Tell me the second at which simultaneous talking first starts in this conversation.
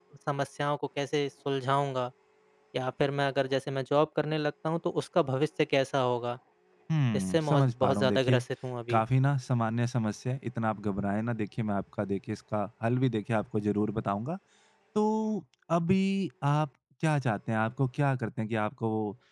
7.1 s

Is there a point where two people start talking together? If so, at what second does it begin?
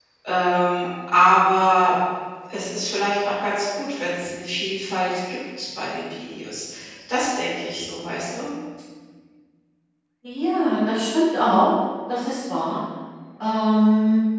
none

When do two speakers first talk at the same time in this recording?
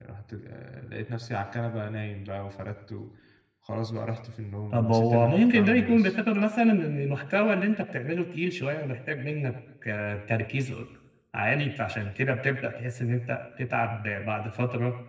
4.7 s

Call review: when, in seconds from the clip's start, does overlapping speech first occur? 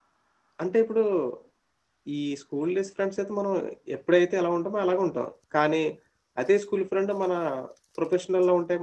none

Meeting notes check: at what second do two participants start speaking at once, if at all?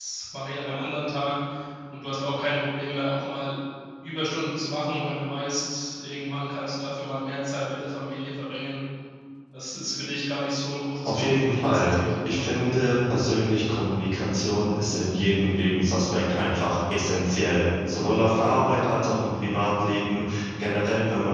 11.1 s

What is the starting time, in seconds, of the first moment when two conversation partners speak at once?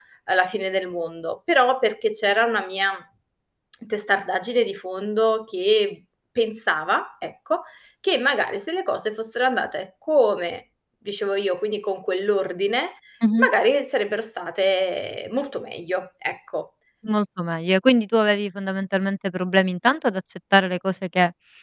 none

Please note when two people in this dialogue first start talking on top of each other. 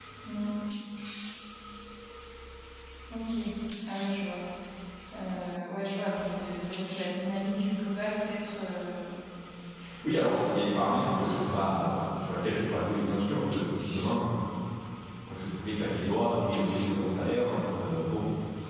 10.2 s

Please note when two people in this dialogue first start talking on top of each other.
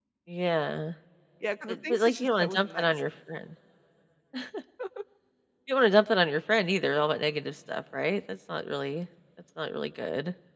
1.7 s

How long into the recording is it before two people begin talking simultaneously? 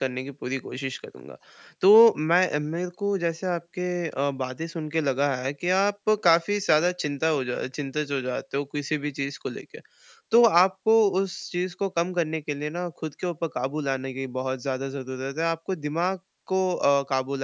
none

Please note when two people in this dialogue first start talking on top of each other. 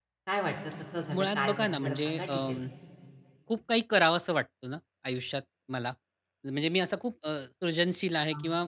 1.1 s

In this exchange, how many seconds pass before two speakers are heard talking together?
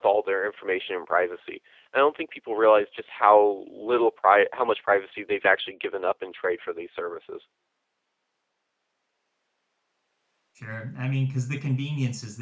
none

